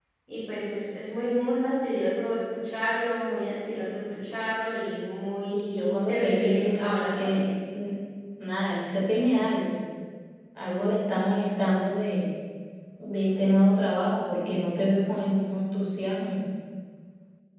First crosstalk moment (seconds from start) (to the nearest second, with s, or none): 6 s